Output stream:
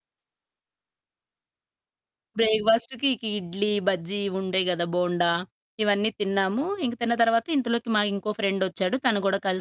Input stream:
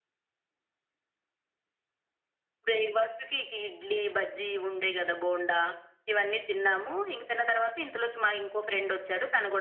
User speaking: No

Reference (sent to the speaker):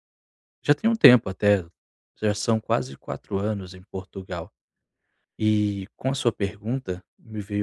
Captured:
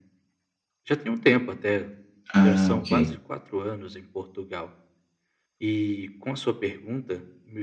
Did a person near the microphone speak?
Yes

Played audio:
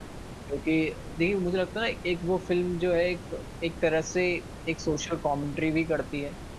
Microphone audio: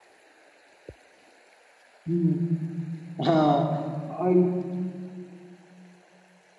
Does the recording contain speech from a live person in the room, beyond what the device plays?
Yes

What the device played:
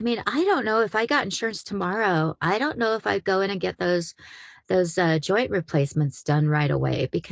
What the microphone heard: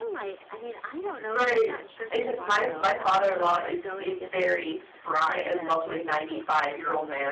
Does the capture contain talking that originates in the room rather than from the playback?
Yes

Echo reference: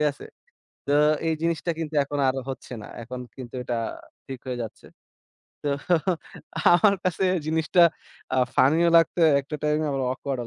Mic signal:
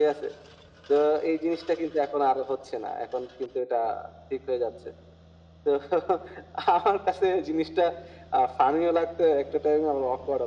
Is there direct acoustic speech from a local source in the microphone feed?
No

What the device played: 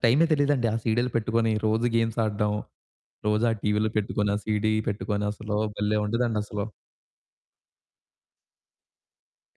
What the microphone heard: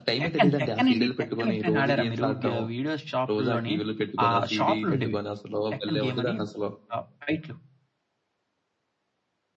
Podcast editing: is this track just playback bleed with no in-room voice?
No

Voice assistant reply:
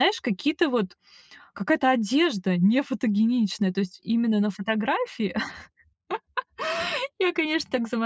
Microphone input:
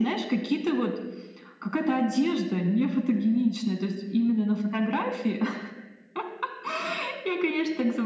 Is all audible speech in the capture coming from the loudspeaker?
Yes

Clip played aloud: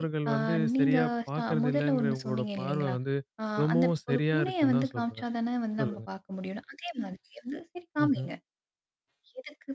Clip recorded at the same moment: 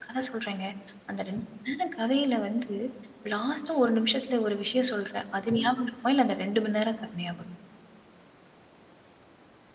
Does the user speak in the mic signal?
Yes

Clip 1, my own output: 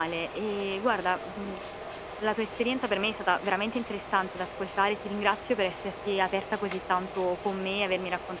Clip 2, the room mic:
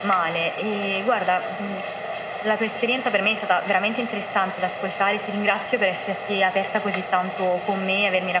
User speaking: No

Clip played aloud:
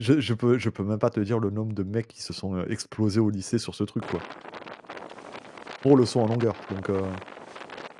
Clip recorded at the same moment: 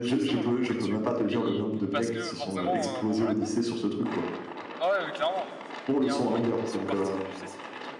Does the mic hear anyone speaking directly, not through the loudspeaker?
Yes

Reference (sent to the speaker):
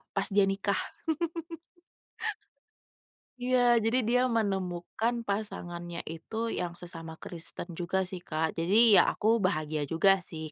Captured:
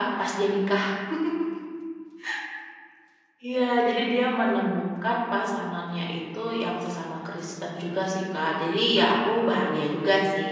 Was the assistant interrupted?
No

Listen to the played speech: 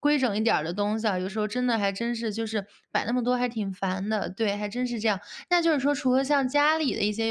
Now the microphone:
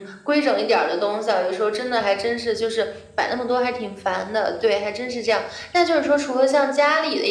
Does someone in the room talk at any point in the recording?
No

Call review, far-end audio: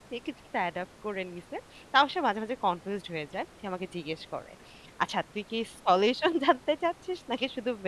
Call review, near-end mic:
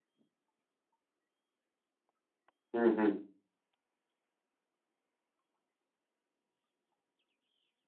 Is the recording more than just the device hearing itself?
Yes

